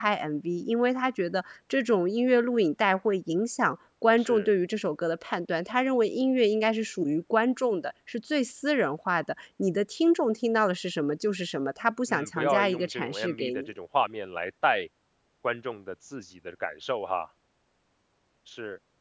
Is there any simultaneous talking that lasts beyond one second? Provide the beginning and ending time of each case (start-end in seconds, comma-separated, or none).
12.1-13.7